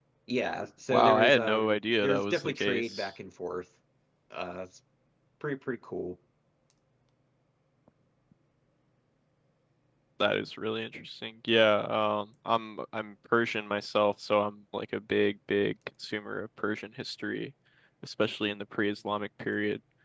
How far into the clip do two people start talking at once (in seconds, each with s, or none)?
0.9 s